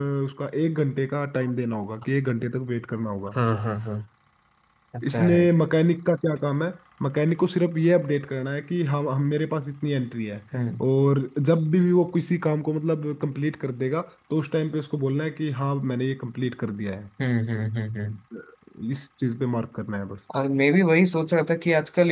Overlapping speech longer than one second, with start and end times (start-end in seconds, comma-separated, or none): none